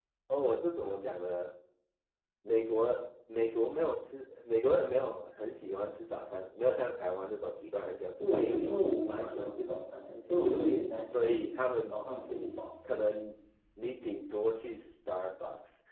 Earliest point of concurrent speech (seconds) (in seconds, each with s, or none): 8.2 s